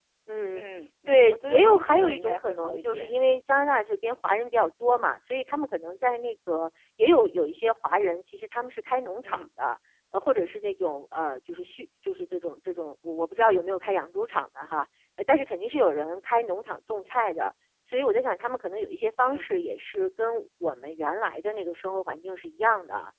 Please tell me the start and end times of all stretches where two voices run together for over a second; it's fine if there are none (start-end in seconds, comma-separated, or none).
1.1-3.1